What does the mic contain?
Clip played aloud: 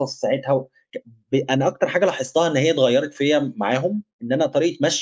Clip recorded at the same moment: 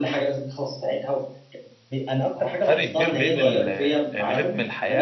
both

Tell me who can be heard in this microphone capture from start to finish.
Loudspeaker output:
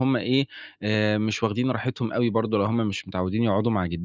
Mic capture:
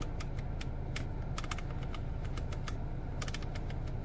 neither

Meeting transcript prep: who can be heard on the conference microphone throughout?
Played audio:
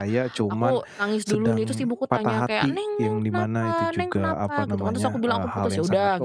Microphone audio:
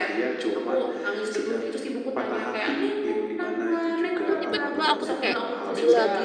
both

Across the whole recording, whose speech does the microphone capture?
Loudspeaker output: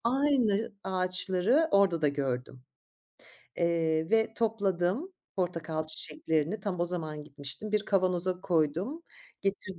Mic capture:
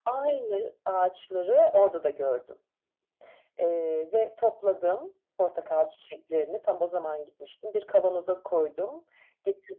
echo only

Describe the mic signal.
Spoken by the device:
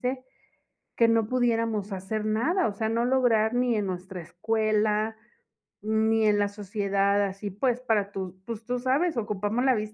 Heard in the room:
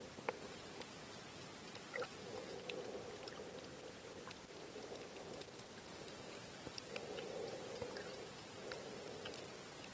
neither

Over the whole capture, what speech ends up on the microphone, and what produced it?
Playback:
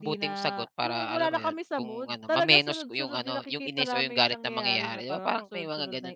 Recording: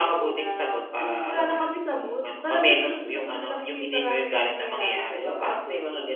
echo only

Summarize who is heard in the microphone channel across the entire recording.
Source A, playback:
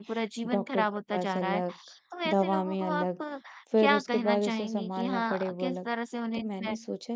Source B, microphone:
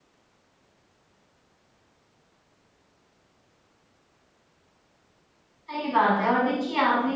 user only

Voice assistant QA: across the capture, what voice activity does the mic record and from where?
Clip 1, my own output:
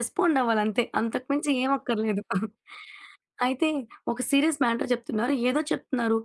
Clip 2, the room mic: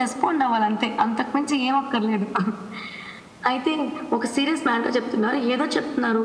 echo only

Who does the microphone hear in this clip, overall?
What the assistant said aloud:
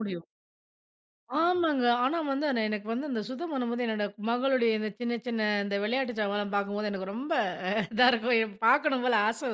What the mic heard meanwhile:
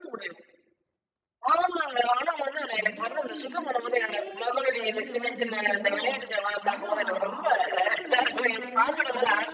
both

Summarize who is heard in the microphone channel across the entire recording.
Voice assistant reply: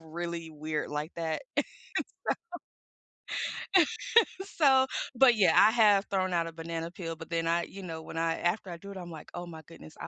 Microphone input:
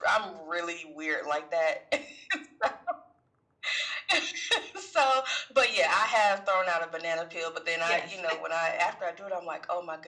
both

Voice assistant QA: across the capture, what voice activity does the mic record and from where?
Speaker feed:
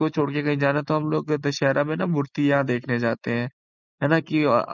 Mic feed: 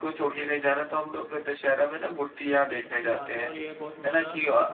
both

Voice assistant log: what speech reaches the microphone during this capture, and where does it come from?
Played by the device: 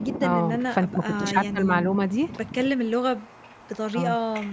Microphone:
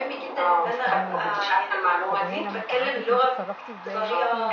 both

